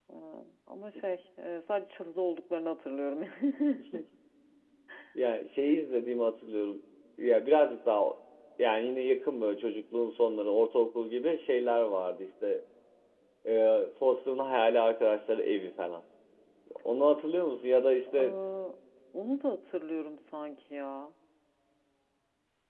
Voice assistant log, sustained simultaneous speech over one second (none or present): none